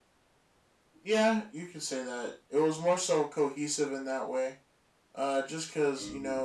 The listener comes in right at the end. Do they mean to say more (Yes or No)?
No